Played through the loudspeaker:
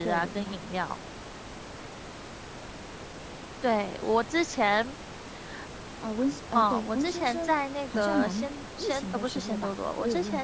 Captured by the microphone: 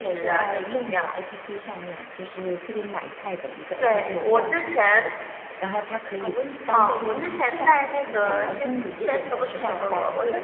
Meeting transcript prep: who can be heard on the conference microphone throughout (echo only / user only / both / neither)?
both